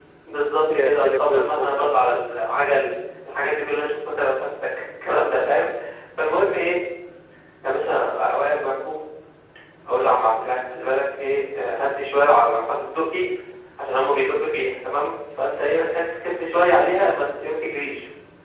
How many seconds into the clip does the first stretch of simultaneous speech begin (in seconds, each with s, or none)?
0.7 s